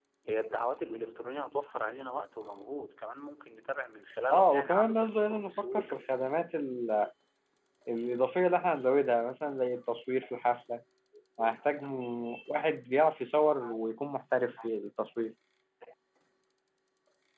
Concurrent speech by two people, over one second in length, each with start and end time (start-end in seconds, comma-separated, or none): 4.3-6.0